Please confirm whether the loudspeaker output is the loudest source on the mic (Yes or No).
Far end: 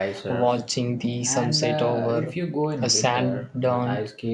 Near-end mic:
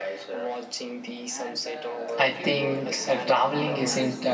No